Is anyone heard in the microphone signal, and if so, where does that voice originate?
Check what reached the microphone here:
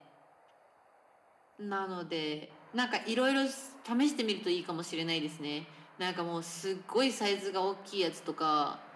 echo only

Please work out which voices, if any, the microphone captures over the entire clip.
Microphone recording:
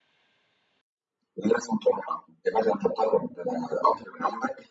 echo only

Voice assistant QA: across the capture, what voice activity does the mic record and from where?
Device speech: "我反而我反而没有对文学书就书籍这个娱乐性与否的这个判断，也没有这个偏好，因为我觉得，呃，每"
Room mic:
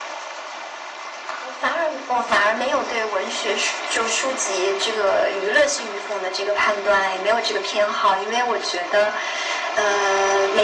echo only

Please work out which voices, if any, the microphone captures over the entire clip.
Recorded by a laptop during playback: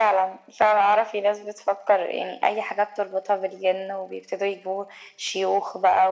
echo only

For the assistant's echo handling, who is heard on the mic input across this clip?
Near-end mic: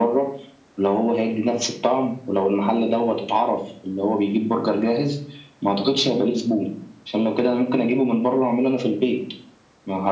echo only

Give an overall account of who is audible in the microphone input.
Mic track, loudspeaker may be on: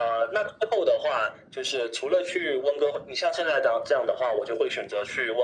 echo only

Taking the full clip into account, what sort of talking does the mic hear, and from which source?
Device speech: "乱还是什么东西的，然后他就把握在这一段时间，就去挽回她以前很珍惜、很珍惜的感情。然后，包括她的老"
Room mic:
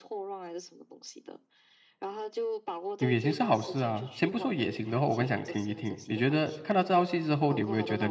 both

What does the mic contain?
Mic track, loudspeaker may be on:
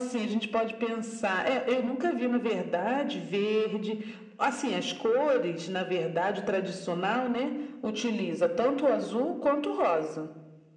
echo only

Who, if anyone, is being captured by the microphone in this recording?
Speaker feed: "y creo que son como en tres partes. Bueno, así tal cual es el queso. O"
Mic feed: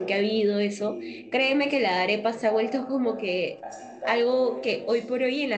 both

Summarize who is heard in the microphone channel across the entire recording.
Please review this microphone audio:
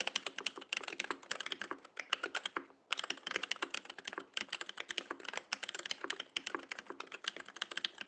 neither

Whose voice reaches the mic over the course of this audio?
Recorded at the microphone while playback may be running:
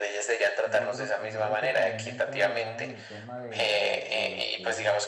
both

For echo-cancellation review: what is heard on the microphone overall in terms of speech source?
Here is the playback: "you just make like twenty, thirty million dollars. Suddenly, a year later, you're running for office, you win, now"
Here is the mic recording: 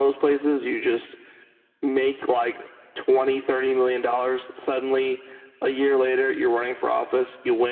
echo only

